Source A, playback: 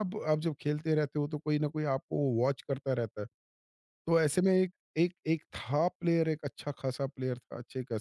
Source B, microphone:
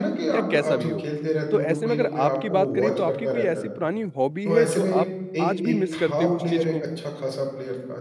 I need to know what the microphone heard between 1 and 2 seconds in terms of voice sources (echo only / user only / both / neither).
both